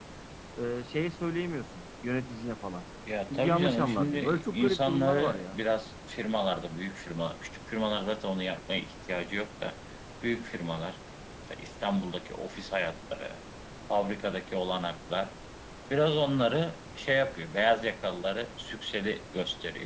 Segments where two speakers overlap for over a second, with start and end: 3.3-5.6

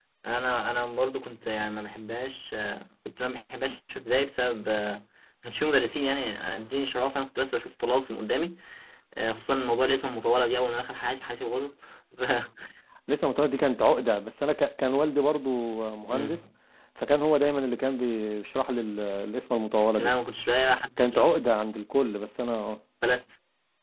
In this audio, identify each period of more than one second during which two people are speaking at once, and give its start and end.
none

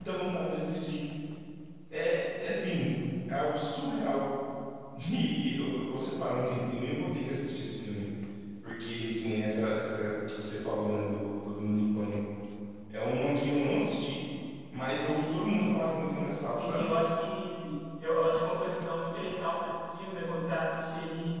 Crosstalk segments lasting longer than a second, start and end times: 15.5-16.9

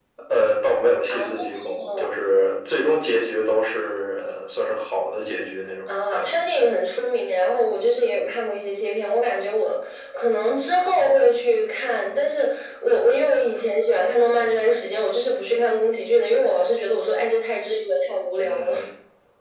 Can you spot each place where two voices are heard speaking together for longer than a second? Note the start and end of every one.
none

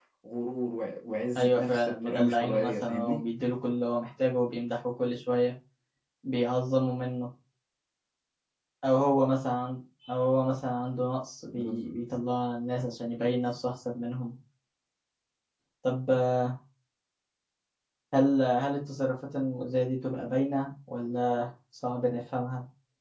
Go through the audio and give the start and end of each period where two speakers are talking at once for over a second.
1.4-3.2

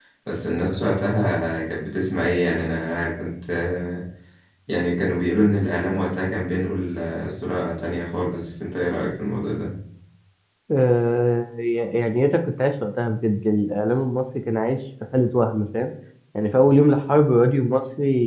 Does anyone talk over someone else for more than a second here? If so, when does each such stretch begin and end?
none

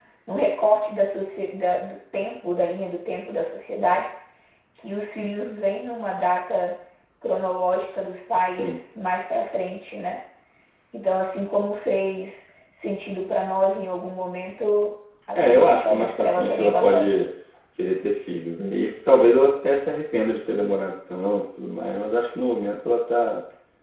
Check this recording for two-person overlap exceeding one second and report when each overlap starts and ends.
15.3-17.2

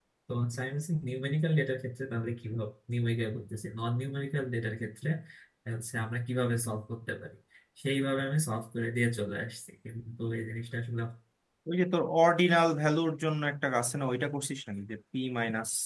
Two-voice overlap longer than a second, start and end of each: none

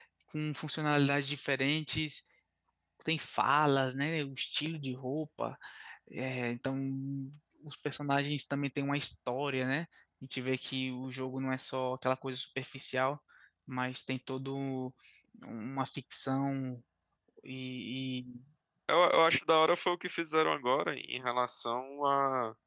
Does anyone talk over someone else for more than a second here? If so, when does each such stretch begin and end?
none

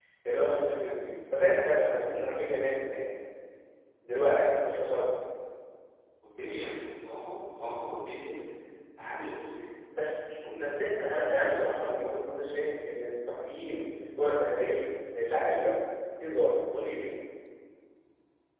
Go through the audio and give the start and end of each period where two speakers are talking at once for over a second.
none

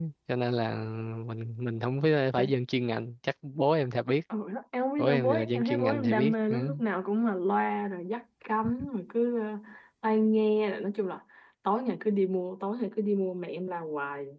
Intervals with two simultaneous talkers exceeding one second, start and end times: 5.0-6.6

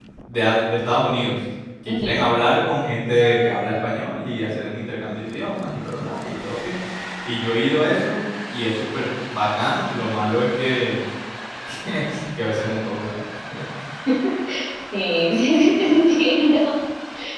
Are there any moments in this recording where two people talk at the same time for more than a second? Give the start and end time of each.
none

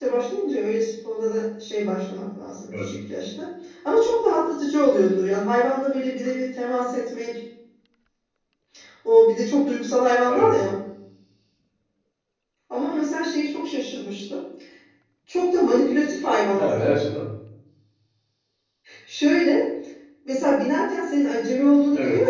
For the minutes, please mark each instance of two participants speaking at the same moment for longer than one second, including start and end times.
none

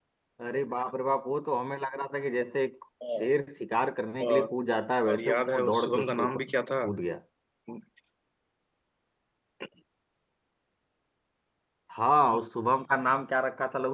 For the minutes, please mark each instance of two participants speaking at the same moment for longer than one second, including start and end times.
5.1-6.5

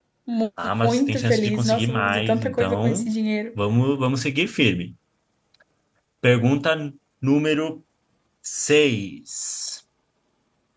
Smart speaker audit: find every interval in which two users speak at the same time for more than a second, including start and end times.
0.8-3.1

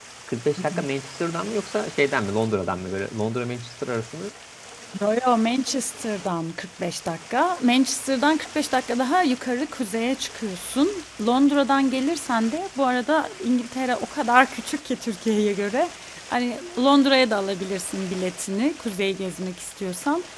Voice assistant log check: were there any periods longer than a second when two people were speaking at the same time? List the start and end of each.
none

